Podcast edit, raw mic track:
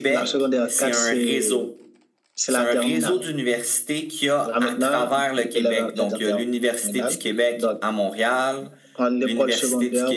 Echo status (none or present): present